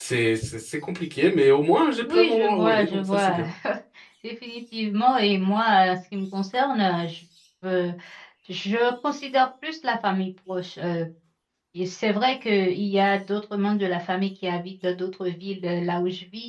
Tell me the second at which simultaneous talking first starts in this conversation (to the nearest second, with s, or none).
2 s